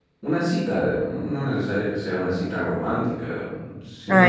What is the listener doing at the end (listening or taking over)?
taking over